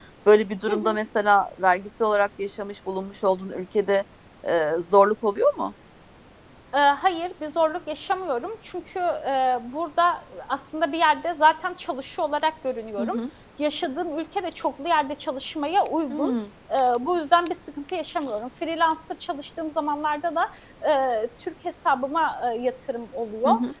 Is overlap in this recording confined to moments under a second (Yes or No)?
Yes